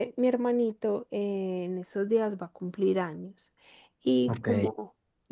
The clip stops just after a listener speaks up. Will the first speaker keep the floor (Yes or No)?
Yes